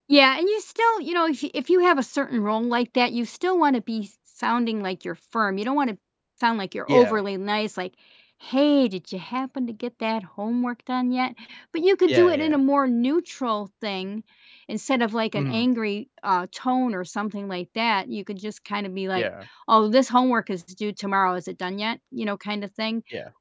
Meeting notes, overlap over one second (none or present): none